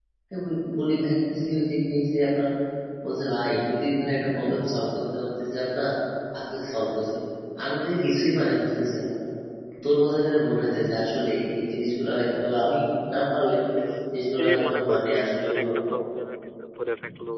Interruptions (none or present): present